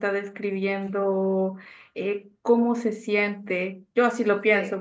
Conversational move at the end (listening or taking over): listening